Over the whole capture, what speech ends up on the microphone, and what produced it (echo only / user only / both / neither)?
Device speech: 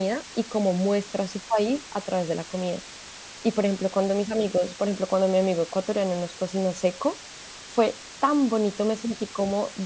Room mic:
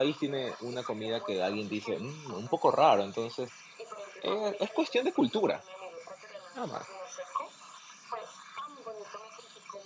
both